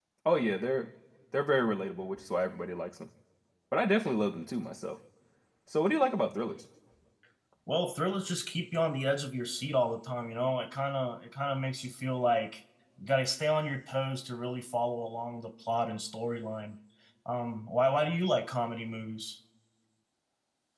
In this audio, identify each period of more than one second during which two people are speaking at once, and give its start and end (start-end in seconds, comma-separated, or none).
none